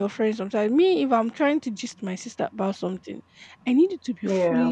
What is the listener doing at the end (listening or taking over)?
listening